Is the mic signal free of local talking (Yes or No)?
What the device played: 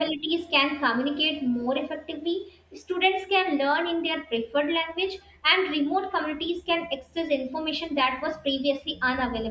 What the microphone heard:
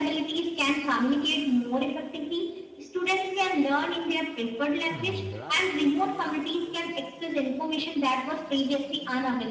No